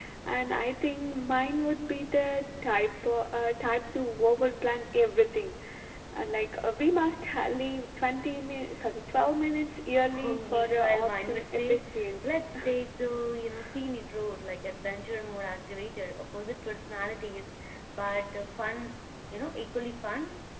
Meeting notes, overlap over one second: present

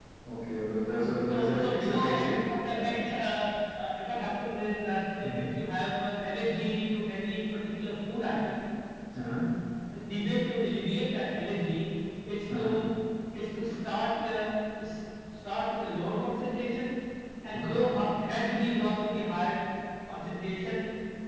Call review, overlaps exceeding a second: present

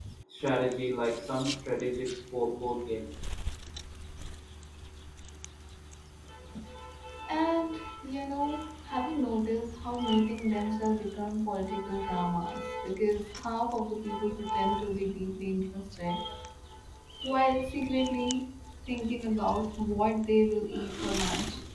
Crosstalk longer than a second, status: none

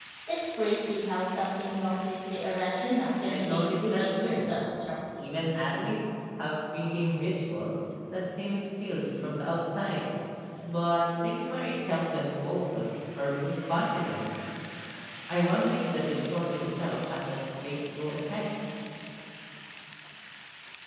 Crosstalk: present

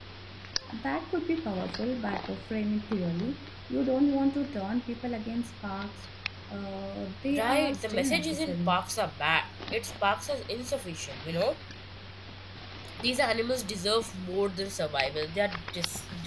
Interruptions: present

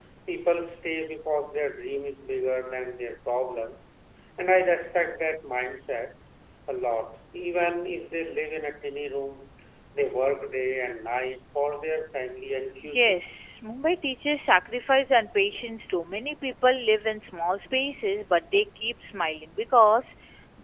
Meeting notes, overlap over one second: none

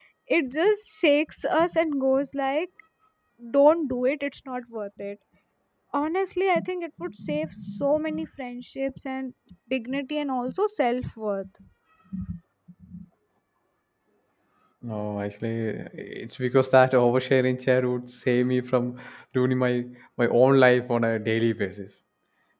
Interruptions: none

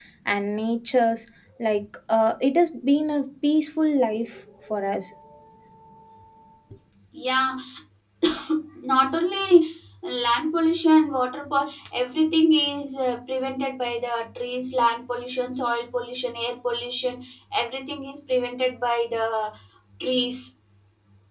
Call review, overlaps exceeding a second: none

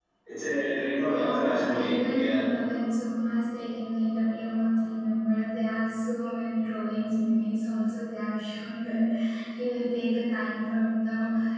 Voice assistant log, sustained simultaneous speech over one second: present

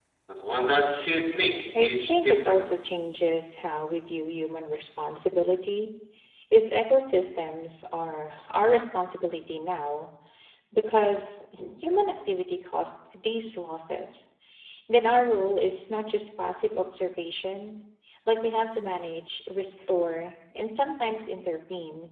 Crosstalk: present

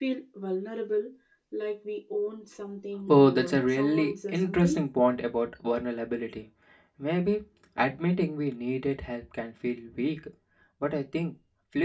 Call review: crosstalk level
present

